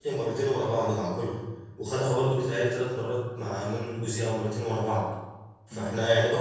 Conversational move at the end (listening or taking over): listening